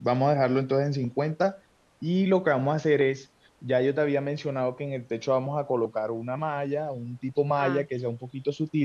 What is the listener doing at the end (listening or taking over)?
listening